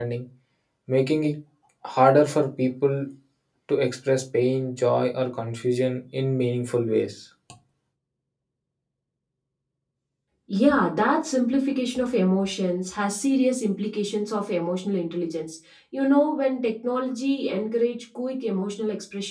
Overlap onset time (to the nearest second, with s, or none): none